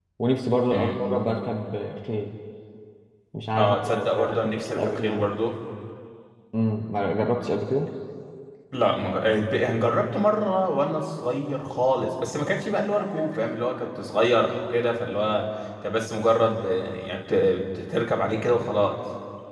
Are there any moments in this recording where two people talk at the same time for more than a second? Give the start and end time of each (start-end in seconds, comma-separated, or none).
3.6-5.3